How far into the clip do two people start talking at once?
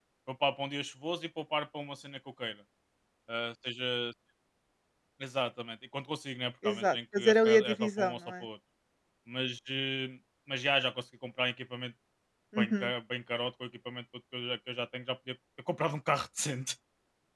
6.6 s

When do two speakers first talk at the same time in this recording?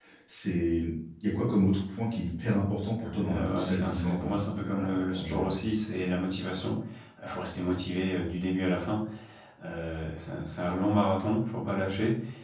3.1 s

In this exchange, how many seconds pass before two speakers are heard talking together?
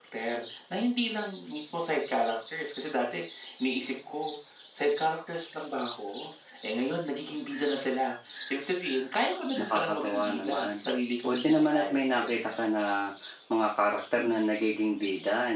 9.6 s

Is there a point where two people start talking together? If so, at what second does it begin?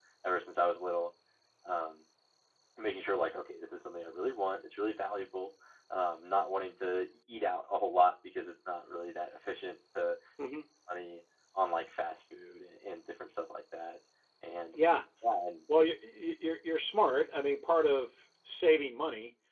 none

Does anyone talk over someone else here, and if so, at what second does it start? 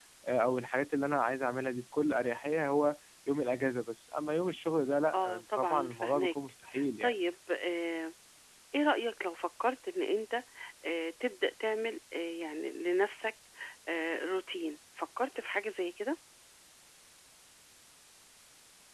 5.1 s

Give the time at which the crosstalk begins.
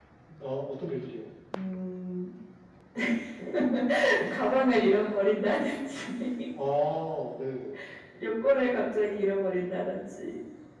none

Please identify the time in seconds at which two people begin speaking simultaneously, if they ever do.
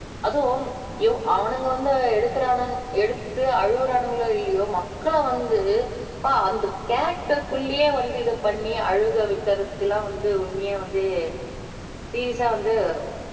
none

